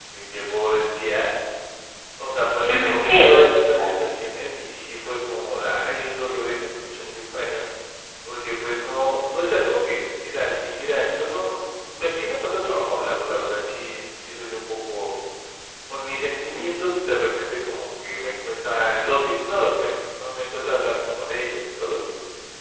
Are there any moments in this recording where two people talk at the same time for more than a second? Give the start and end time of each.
2.7-4.0

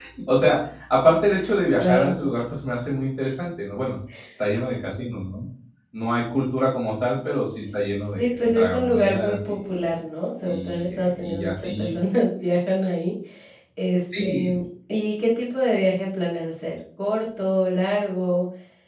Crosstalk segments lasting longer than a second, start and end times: 8.1-9.8, 10.4-11.9

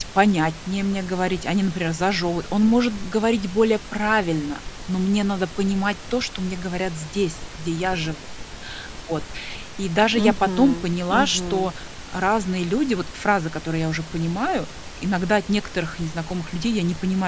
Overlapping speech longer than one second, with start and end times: 10.1-11.7

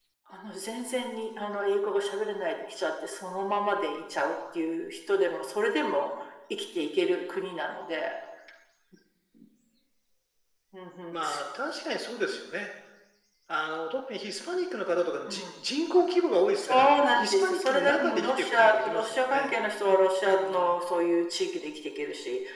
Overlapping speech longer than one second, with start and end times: 16.6-19.5

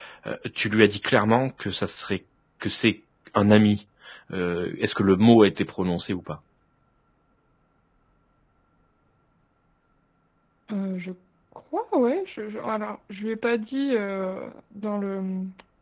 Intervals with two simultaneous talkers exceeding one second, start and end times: none

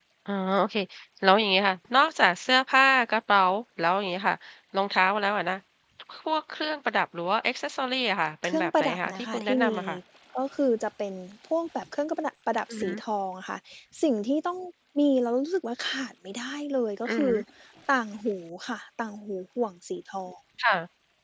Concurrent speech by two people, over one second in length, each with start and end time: 8.4-9.8

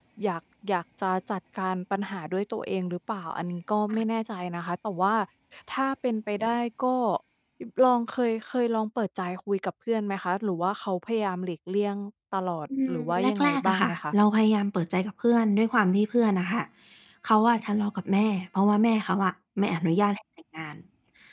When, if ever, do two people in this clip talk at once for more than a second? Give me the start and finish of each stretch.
12.9-14.1

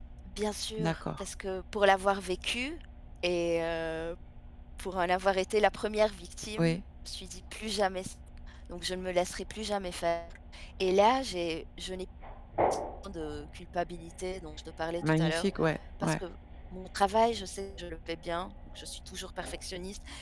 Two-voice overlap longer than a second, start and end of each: none

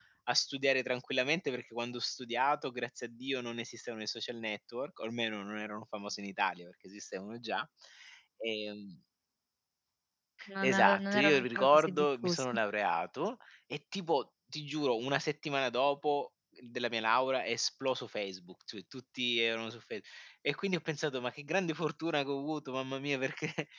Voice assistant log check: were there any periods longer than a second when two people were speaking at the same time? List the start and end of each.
10.6-12.4

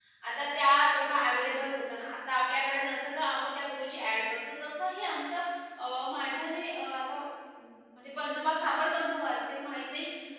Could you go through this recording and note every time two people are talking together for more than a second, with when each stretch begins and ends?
none

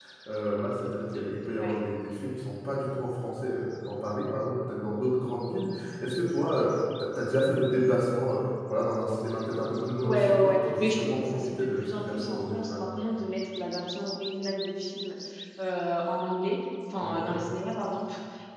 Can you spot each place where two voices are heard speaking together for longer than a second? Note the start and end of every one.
10.0-12.8

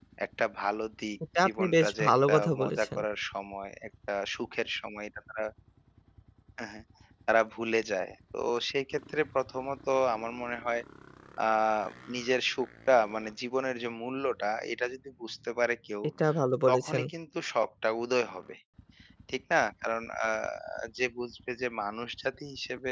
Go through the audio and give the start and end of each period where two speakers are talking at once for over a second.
1.4-3.0

